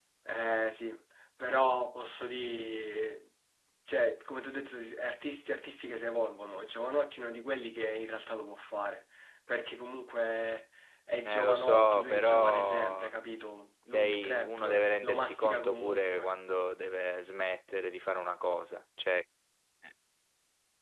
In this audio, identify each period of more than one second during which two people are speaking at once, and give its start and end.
11.2-13.1, 13.9-16.3

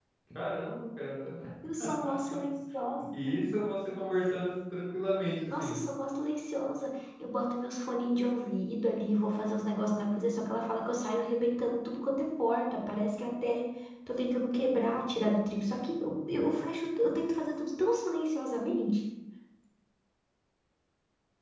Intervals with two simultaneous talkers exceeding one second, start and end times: none

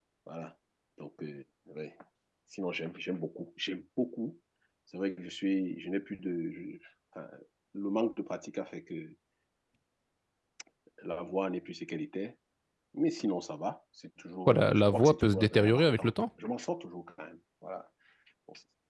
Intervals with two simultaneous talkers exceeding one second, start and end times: 14.4-16.1

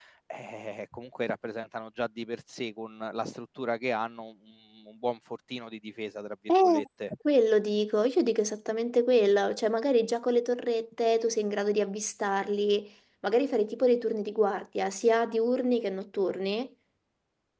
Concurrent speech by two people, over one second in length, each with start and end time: none

